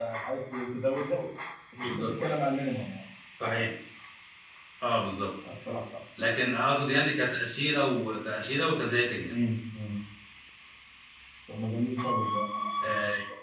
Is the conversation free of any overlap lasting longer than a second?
Yes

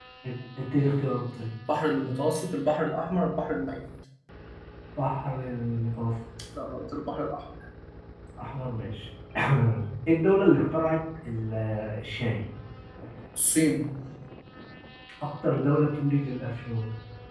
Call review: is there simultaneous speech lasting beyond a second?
No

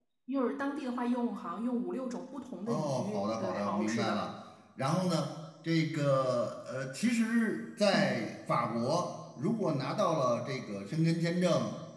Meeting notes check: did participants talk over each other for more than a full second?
Yes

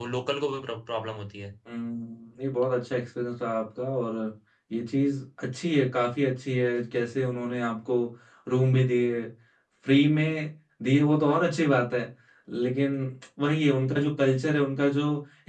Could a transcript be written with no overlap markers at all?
Yes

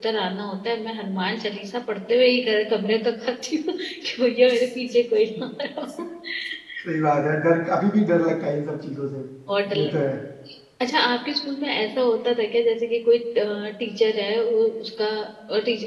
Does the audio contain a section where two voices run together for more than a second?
No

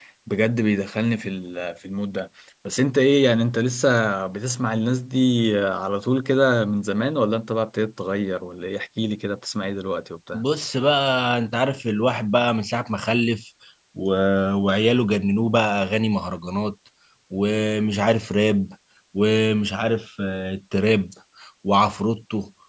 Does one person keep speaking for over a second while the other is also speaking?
No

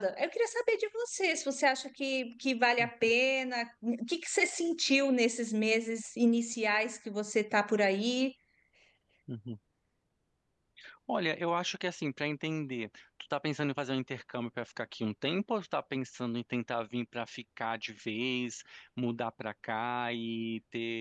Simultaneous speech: No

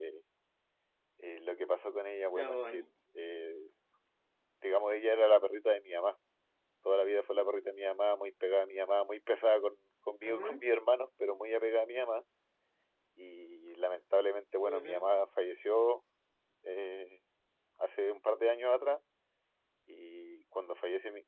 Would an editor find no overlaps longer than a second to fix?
Yes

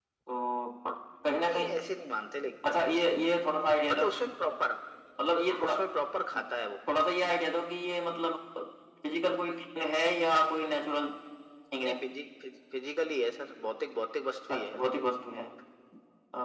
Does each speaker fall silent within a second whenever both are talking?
Yes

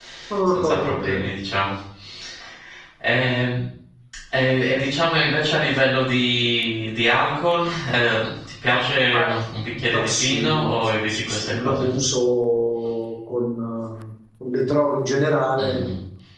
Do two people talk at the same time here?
Yes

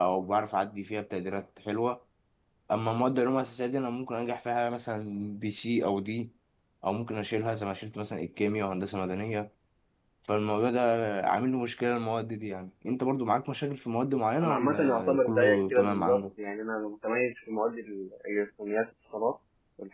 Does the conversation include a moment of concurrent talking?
Yes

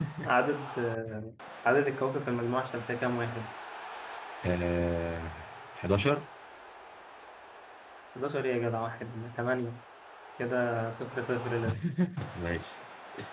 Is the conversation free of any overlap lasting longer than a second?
Yes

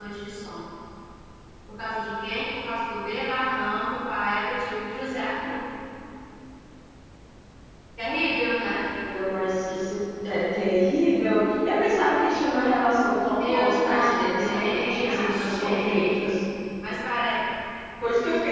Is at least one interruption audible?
Yes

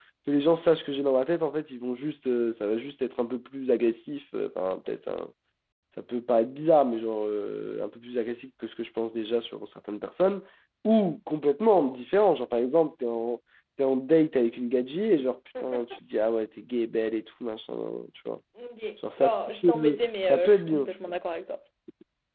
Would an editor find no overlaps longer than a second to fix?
No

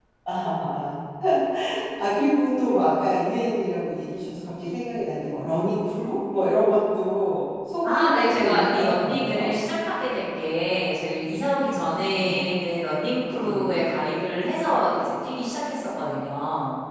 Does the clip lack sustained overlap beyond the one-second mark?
No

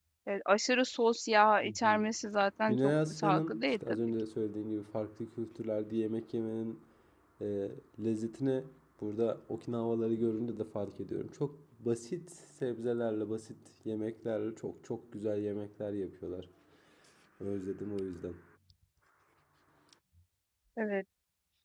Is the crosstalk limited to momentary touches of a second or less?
No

